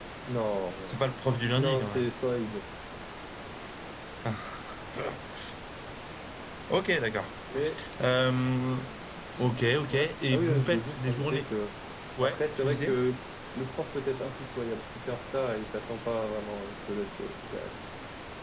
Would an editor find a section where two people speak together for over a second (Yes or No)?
Yes